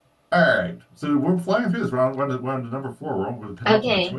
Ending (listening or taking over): taking over